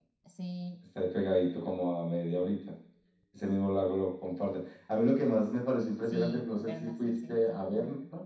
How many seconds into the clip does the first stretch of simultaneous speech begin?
6 s

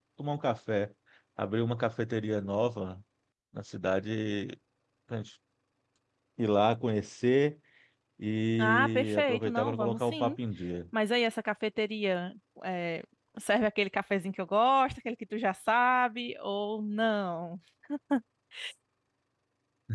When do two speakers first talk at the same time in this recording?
9 s

